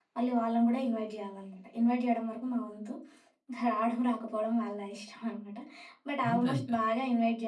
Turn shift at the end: No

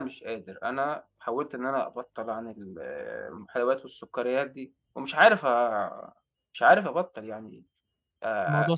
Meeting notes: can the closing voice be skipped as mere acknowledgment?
Yes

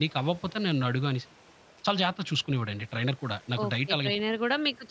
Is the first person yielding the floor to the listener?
Yes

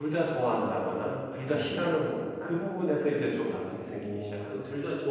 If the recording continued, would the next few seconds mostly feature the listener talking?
Yes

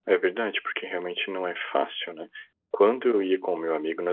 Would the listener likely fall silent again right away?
Yes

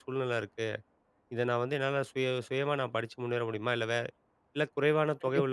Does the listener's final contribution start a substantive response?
Yes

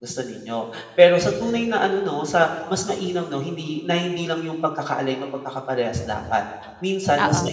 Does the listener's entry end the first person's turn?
No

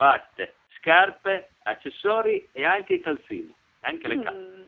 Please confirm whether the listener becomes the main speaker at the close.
Yes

